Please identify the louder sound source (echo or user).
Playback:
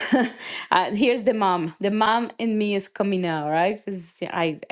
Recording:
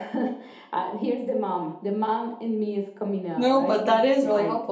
user